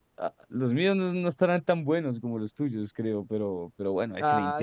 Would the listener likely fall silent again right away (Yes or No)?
No